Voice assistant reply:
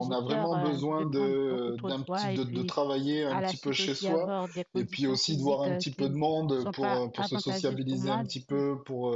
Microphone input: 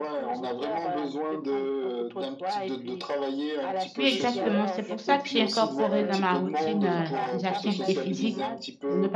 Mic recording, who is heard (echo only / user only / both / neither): both